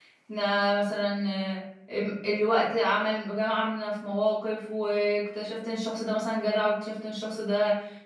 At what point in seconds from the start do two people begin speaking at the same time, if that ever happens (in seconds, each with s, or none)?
none